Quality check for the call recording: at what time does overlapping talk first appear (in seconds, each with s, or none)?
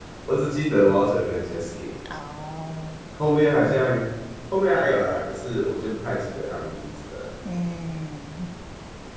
none